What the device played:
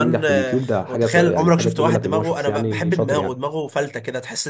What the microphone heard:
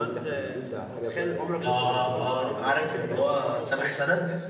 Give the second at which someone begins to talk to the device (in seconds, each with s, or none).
1.6 s